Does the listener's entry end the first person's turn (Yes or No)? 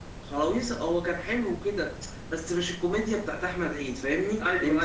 Yes